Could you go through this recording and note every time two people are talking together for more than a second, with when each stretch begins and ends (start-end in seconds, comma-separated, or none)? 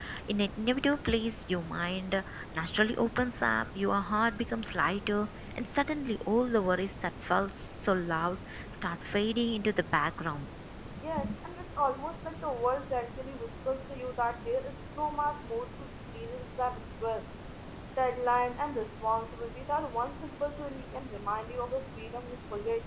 none